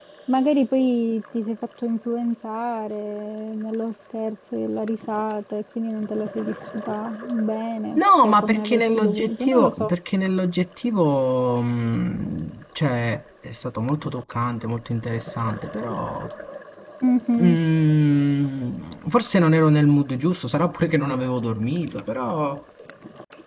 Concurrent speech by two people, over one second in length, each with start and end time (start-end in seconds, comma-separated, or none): 8.0-9.9